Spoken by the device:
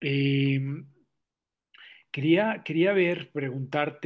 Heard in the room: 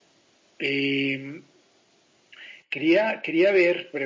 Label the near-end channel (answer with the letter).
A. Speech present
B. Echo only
B